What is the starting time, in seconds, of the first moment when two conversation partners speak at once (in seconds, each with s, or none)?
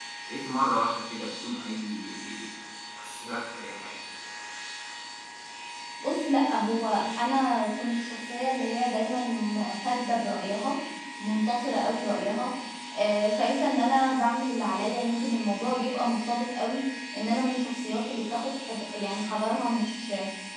none